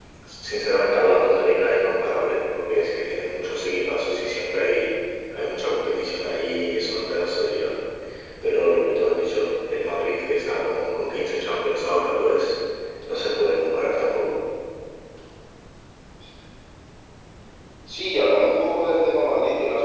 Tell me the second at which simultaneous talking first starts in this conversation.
none

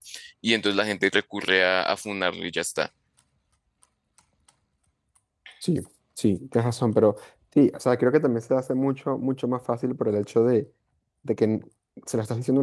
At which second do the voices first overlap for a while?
none

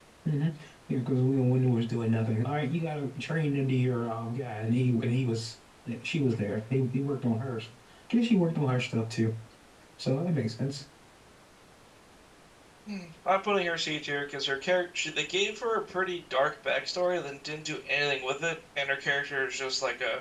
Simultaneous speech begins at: none

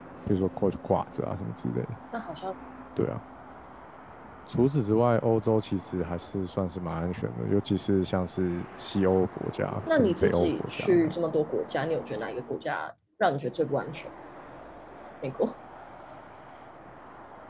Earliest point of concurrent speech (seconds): 9.9 s

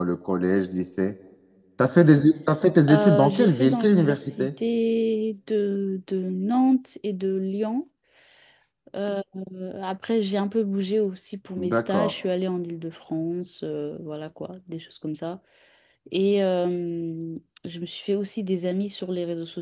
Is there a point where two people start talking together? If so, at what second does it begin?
2.9 s

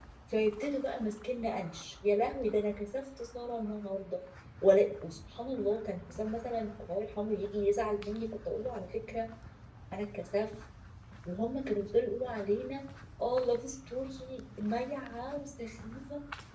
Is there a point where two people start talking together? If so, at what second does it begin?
none

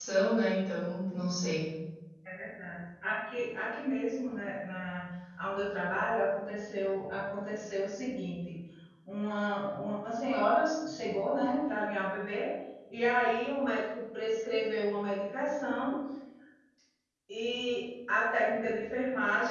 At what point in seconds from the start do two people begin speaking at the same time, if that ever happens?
none

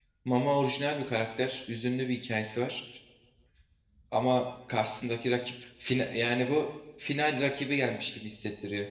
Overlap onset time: none

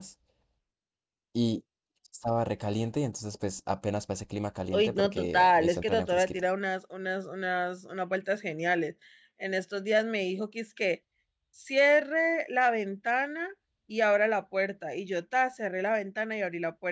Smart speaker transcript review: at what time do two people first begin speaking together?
4.7 s

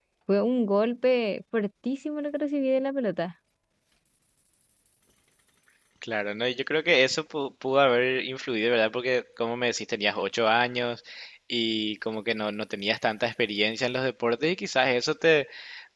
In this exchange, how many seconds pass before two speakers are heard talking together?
none

